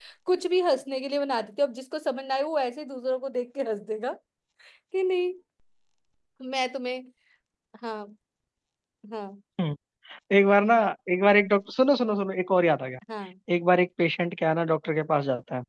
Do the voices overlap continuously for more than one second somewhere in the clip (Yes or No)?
No